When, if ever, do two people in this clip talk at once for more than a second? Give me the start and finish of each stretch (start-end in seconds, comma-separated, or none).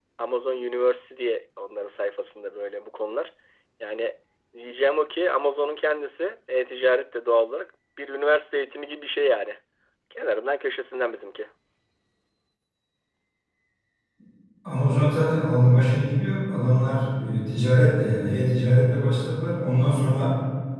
none